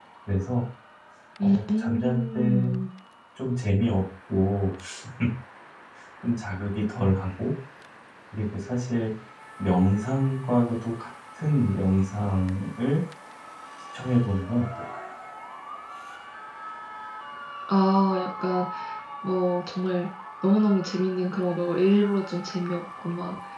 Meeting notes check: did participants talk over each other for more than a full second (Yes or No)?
Yes